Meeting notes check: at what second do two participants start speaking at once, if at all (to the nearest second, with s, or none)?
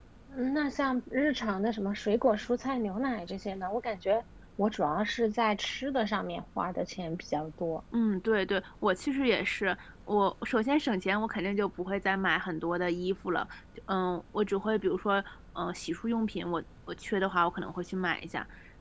none